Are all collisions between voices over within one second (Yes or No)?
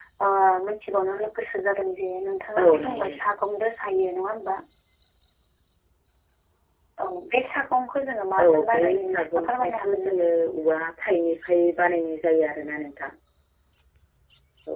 No